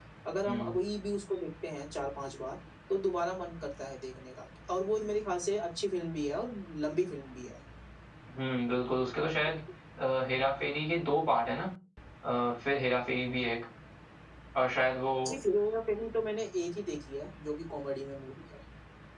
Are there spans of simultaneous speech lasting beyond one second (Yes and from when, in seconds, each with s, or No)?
No